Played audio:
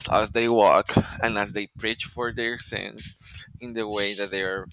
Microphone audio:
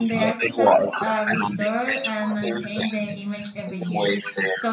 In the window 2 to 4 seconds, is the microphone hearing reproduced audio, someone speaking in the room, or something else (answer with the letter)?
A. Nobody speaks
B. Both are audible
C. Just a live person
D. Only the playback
B